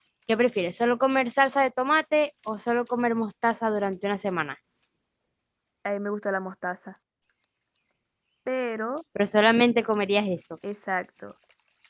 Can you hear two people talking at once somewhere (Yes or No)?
No